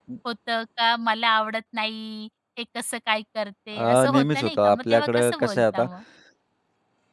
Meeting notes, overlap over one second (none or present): present